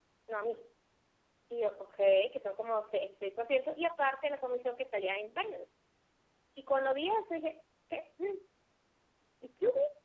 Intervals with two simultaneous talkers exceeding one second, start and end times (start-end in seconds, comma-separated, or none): none